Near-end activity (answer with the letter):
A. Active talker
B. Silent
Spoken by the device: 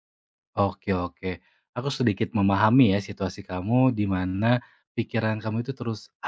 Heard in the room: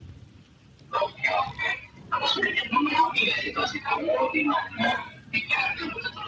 B